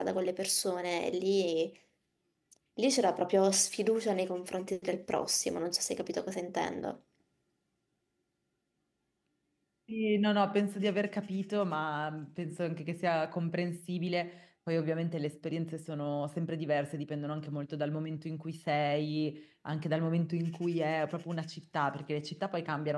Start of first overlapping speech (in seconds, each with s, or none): none